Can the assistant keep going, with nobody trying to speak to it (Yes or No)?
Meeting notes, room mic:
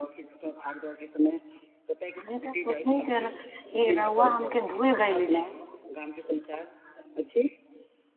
No